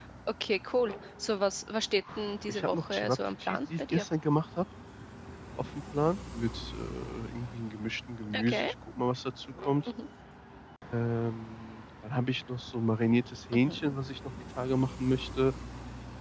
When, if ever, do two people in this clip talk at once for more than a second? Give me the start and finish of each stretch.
2.5-4.0

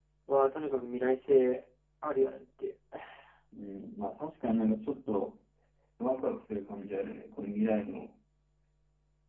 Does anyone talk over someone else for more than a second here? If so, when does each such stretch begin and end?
none

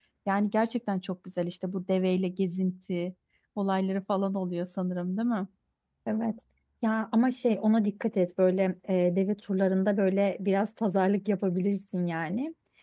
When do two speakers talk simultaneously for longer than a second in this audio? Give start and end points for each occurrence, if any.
none

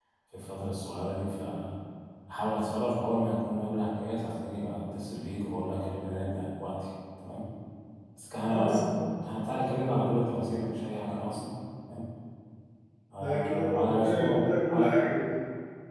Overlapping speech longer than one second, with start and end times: 13.2-15.1

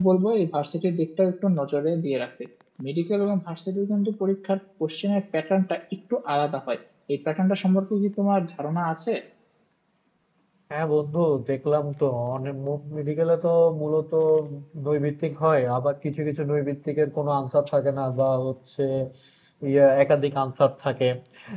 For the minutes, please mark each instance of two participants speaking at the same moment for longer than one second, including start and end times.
none

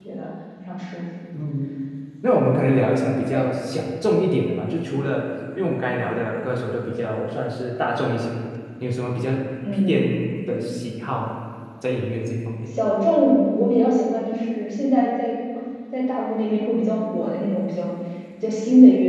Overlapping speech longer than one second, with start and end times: none

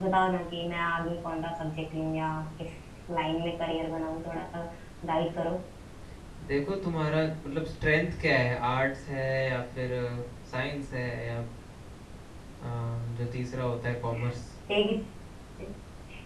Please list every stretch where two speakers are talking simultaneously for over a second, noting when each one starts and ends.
none

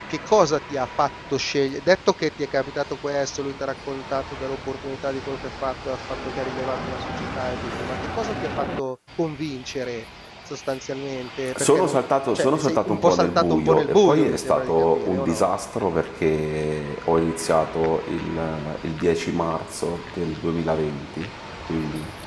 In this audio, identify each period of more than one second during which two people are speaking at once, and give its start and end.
12.3-15.4

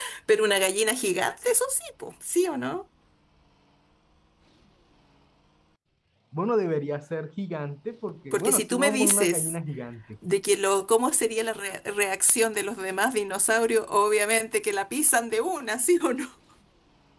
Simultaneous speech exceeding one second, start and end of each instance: 8.3-9.6

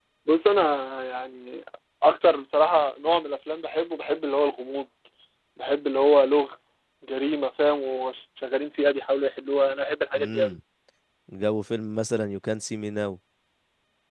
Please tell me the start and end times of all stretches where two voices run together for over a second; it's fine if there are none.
none

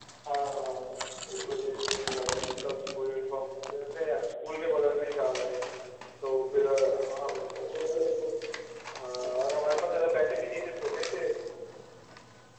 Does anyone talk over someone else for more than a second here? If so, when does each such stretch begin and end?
none

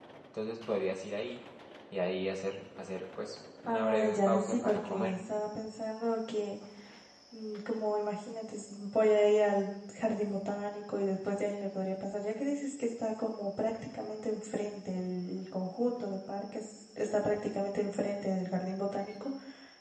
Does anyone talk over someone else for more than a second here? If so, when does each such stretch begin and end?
3.6-5.1

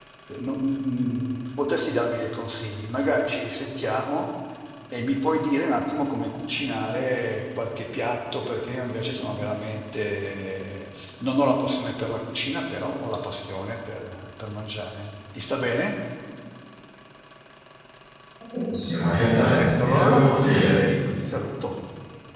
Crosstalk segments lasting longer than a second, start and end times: 19.4-20.8

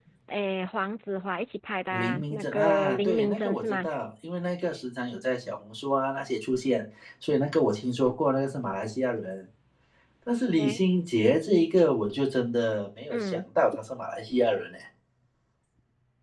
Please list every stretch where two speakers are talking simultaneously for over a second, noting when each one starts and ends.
1.9-3.9

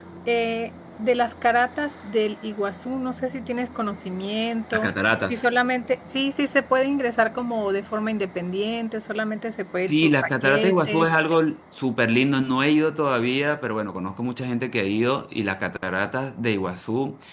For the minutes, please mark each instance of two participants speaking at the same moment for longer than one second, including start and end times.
9.9-11.1

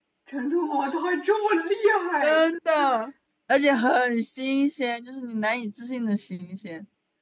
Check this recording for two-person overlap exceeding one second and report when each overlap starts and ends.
none

